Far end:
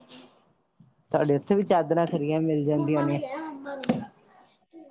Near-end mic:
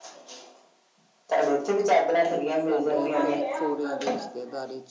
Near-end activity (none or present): present